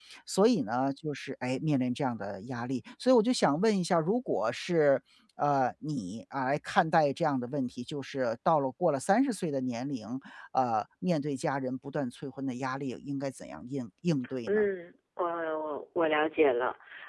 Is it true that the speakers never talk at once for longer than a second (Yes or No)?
Yes